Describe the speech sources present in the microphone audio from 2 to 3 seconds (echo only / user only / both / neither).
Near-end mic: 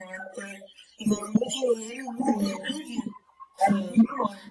both